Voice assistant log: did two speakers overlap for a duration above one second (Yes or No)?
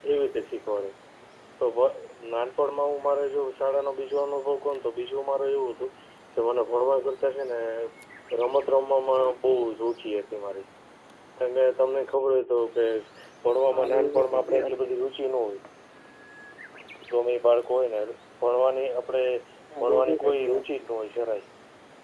Yes